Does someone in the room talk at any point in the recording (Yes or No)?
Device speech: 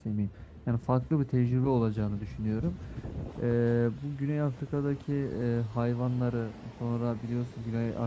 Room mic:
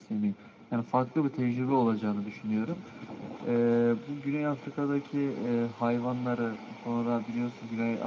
No